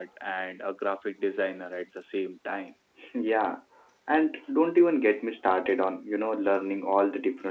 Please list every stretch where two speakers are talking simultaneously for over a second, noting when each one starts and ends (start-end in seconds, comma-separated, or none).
none